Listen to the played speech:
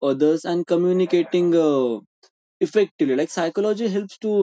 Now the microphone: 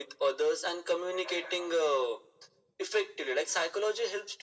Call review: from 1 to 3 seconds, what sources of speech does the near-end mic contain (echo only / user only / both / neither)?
echo only